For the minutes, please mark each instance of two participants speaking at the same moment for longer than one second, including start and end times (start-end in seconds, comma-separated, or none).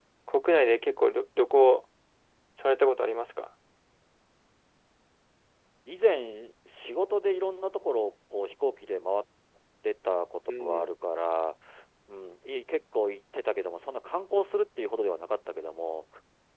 none